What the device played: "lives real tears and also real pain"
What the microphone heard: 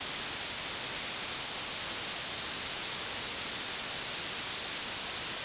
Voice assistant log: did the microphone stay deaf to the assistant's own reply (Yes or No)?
Yes